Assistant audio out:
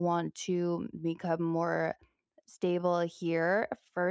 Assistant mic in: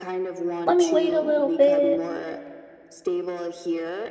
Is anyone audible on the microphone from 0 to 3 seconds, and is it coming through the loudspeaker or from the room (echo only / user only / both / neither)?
both